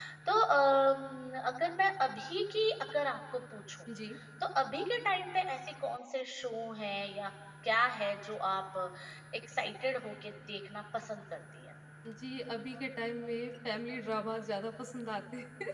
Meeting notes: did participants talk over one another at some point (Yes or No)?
No